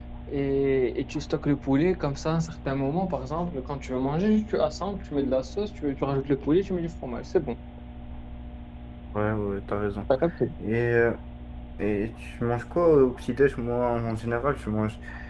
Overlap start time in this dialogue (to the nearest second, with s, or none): none